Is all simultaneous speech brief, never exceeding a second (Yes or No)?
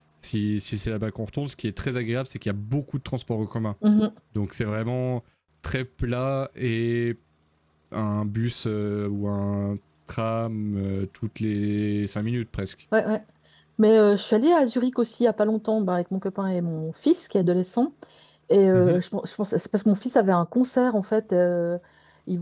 Yes